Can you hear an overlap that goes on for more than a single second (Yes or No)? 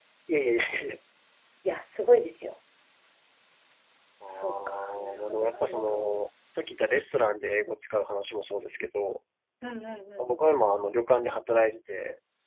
Yes